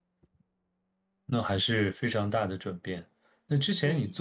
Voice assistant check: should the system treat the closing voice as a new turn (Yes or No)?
No